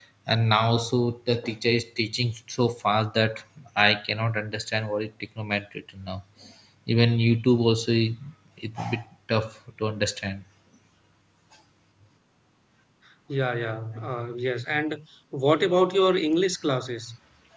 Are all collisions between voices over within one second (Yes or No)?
Yes